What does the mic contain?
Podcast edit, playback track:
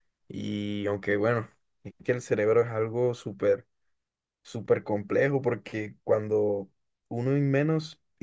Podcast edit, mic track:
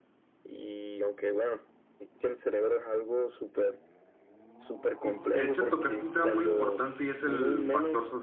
both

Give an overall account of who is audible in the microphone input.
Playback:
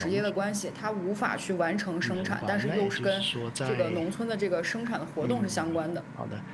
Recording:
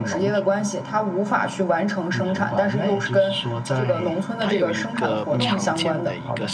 both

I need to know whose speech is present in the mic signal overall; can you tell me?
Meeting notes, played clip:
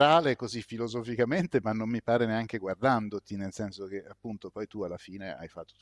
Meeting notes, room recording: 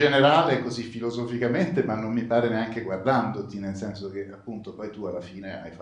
echo only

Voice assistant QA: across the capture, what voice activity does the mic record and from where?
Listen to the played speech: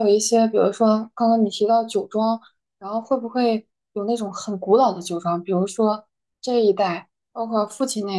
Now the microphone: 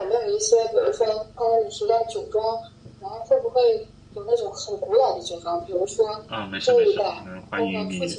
both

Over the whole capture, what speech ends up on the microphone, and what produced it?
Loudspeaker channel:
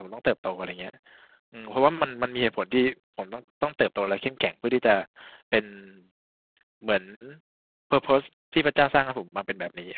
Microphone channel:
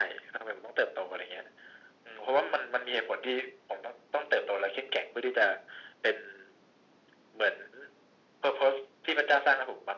echo only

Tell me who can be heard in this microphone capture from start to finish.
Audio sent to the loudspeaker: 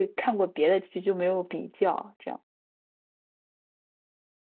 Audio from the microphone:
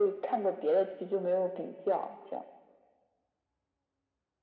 echo only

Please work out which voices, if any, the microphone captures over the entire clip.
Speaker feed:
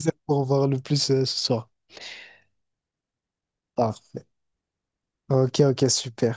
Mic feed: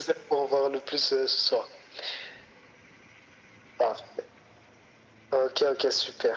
echo only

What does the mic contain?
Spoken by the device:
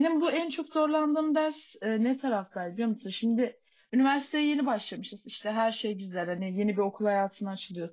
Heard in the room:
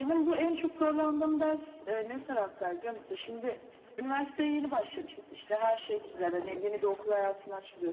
echo only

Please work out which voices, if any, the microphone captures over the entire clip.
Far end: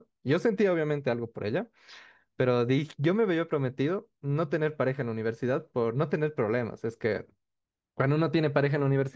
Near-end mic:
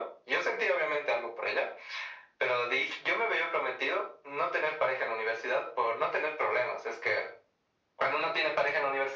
echo only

